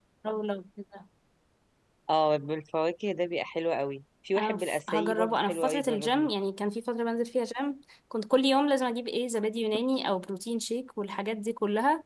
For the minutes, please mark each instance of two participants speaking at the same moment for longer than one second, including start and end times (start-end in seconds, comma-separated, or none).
4.4-6.3